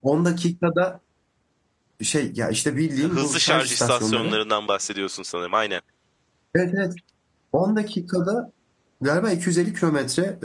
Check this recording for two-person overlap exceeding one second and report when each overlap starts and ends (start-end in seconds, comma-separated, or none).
3.0-4.4